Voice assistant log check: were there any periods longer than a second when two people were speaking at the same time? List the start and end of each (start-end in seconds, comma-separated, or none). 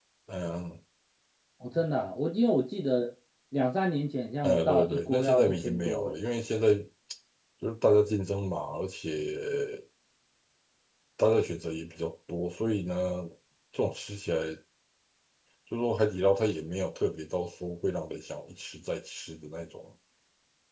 4.4-6.2